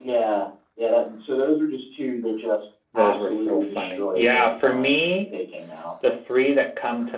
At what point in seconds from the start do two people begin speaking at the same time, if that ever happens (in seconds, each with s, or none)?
2.9 s